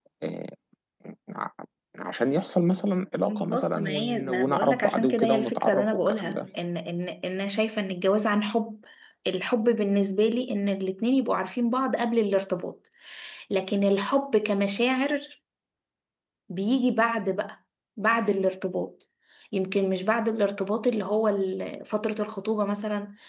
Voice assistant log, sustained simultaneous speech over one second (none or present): present